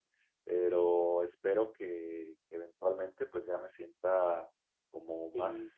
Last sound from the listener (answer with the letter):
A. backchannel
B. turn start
A